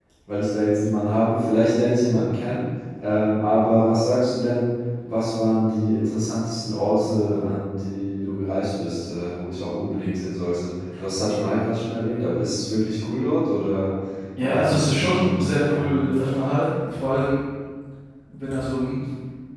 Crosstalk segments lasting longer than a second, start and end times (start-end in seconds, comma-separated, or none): 14.4-15.9